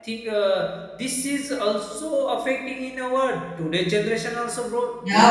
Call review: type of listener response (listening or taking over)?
taking over